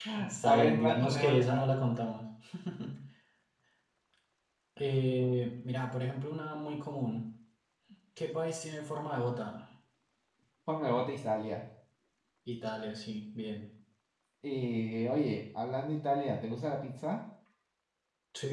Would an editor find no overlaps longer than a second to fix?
No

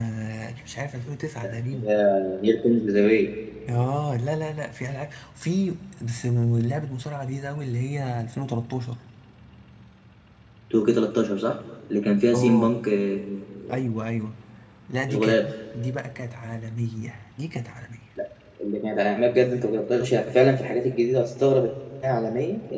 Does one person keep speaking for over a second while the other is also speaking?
No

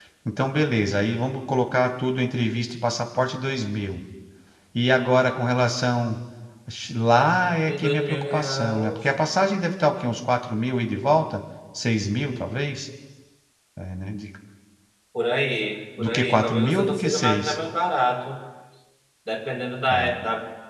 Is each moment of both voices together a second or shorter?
No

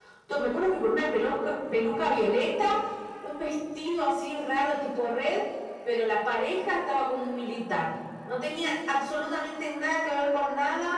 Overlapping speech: No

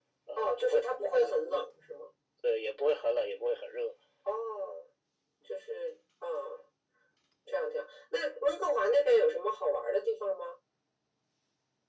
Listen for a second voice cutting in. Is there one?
Yes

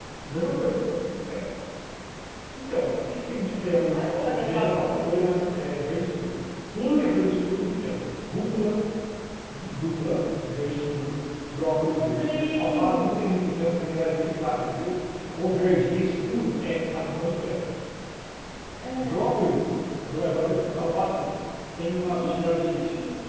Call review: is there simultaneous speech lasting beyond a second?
Yes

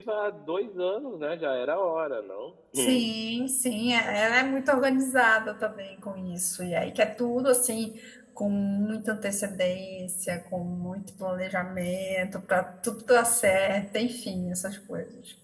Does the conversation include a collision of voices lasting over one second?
No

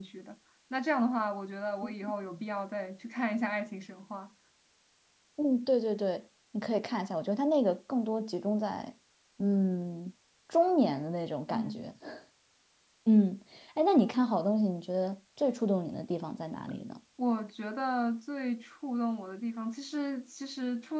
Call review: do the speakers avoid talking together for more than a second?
Yes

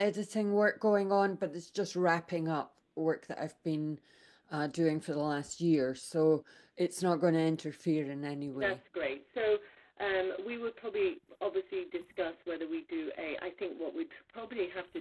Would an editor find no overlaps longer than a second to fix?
Yes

